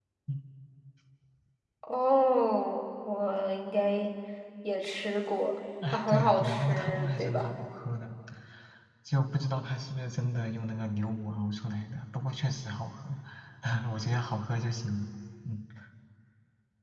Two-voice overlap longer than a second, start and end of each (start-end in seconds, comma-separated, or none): 5.9-7.5